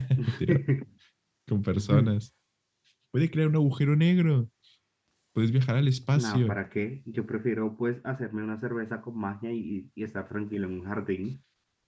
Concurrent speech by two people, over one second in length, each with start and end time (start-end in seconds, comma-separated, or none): none